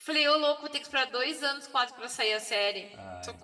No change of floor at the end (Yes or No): No